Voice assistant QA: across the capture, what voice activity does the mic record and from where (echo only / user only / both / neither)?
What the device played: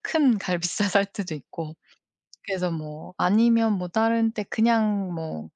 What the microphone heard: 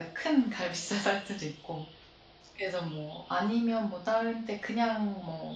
echo only